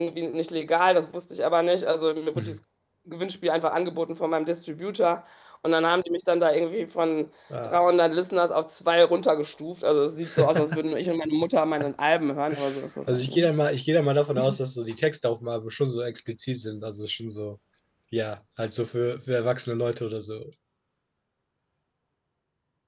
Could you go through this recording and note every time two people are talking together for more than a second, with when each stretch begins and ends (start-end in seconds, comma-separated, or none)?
none